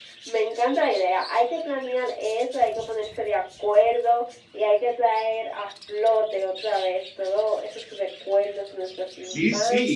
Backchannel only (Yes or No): No